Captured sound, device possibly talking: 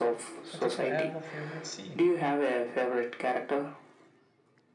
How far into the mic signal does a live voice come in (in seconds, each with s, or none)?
0.4 s